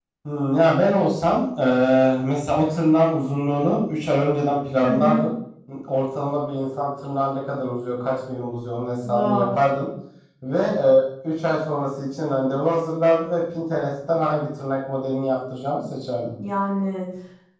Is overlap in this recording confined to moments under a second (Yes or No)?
Yes